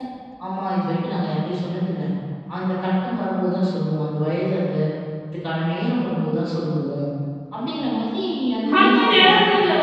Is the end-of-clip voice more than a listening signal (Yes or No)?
Yes